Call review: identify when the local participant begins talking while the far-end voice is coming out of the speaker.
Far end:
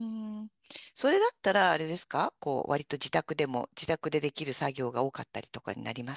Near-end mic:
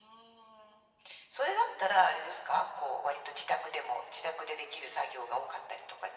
none

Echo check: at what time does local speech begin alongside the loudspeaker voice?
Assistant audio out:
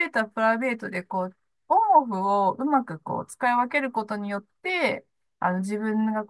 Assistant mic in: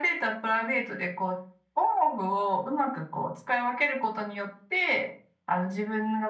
none

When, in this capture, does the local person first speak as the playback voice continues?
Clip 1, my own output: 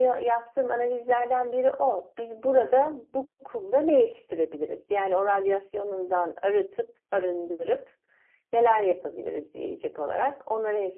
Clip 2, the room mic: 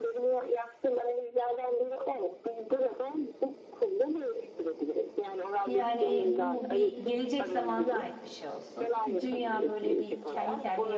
5.6 s

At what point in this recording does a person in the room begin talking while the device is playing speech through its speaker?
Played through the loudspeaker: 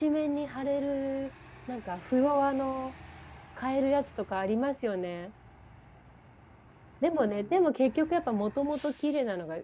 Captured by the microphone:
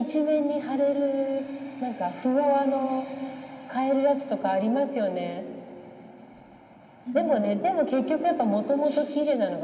7.0 s

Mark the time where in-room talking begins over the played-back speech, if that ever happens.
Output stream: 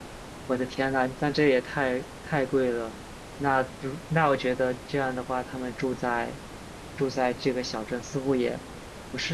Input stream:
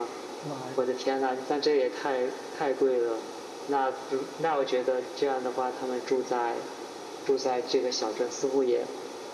0.4 s

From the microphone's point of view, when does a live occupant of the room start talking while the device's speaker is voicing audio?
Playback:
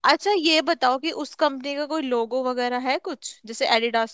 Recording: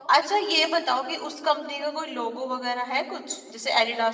none

